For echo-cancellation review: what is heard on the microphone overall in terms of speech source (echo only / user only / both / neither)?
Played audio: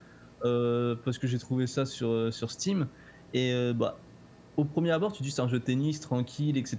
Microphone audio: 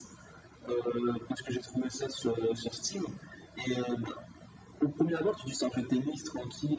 echo only